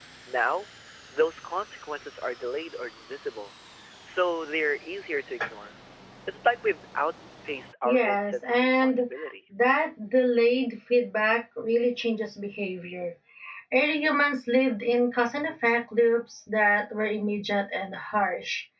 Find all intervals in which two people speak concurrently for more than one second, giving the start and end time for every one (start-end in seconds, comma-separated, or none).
7.8-9.1